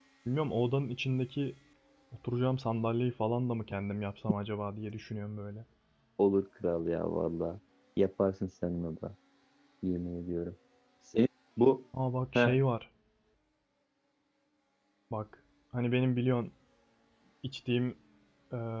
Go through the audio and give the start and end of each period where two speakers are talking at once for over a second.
none

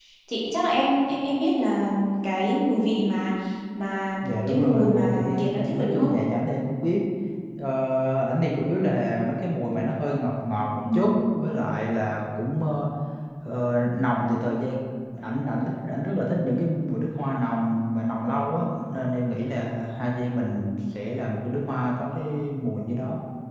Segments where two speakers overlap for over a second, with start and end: 4.2-6.1

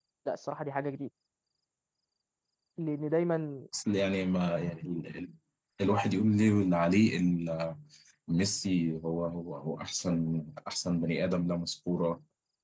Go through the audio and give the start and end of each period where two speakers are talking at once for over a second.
none

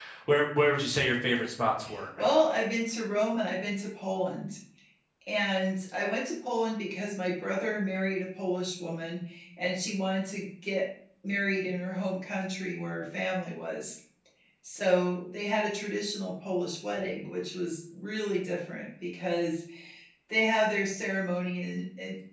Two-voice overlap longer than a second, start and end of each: none

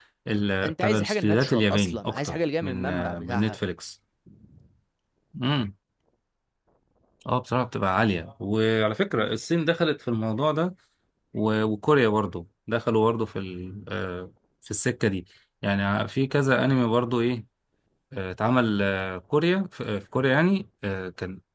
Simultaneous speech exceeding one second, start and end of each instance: 0.6-3.6

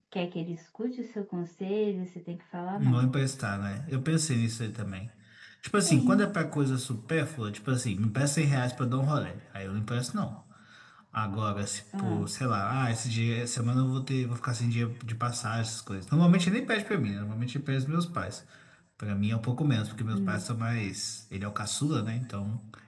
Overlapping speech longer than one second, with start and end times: none

